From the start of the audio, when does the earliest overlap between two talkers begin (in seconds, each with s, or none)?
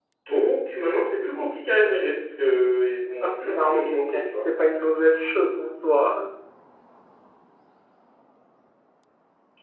3.2 s